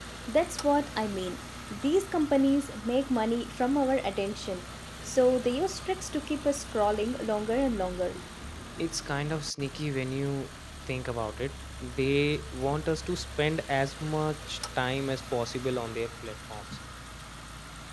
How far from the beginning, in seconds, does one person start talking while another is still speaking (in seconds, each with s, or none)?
none